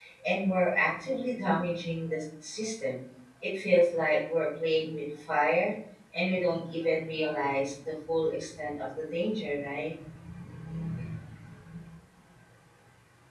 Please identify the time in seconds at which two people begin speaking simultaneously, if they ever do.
none

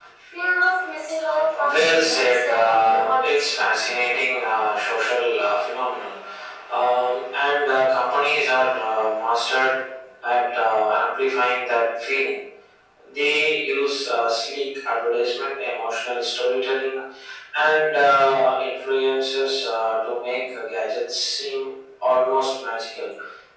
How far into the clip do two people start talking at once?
1.6 s

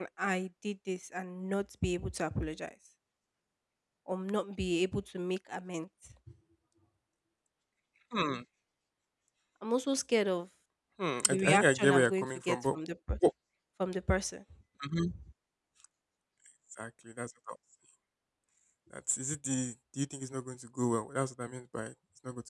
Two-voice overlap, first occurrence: 11.3 s

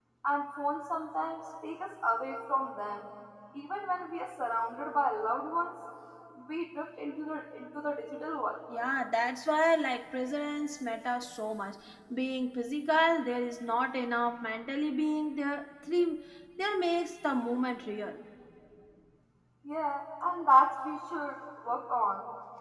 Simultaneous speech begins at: none

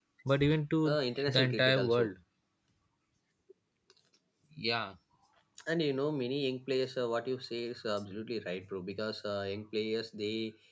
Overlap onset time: 0.8 s

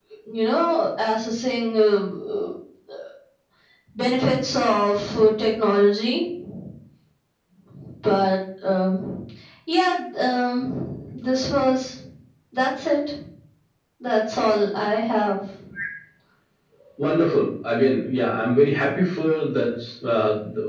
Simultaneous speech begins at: none

